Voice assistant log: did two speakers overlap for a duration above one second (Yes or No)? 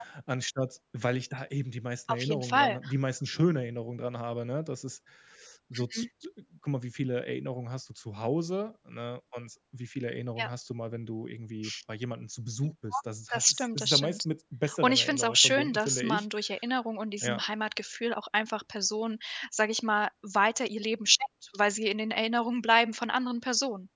Yes